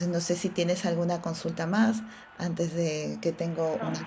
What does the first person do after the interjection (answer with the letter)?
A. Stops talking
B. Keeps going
A